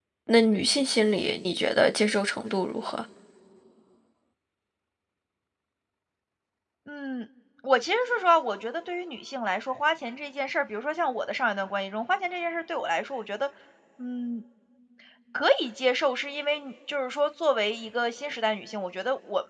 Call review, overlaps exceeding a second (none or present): none